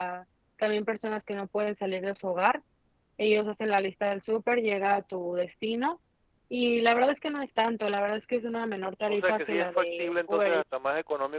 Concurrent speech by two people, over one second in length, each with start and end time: 9.1-10.6

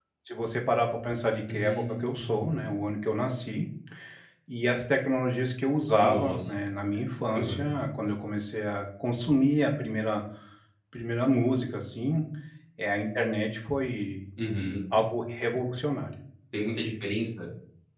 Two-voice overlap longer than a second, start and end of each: 1.5-2.8

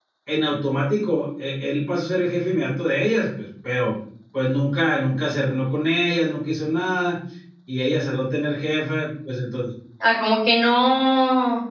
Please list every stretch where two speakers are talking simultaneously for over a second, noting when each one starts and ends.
none

